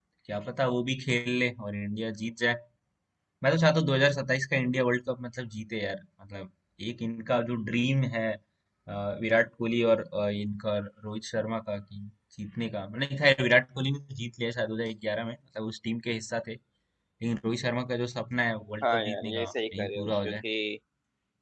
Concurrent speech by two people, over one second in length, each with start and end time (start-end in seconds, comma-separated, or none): 18.8-20.4